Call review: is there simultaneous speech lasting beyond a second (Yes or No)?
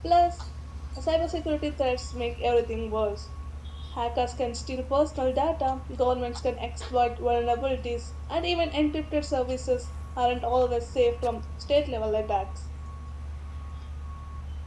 No